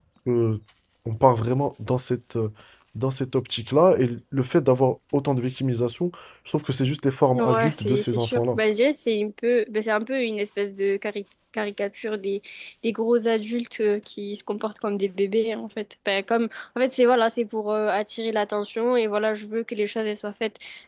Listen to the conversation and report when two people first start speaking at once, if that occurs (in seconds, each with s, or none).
7.3 s